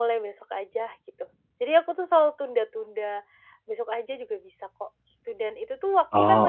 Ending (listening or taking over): listening